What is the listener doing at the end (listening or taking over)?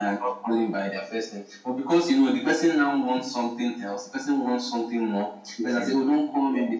listening